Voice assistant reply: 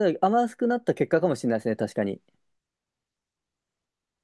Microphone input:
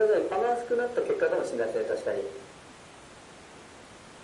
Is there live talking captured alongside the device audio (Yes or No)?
No